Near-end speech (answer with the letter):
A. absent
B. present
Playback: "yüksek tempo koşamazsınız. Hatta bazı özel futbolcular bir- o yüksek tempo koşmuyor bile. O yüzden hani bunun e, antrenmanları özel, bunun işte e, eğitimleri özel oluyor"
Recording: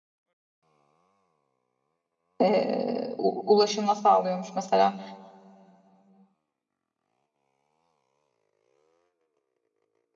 B